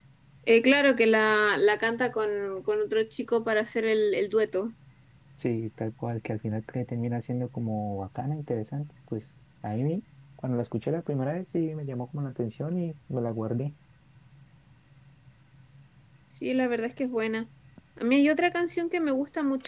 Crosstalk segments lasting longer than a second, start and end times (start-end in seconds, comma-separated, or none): none